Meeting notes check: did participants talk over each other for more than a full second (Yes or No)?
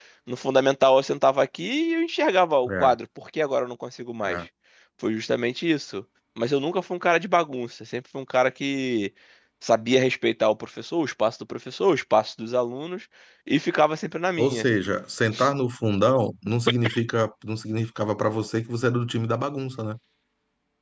No